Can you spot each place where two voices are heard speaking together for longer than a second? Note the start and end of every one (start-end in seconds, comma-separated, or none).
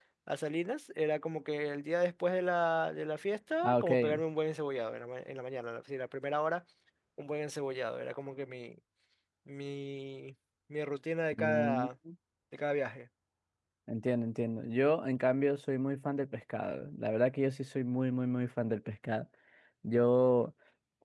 none